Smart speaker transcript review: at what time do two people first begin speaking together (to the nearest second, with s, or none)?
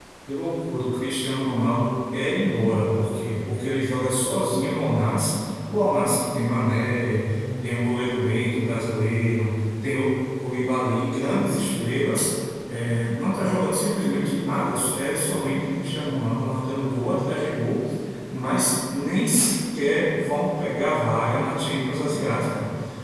none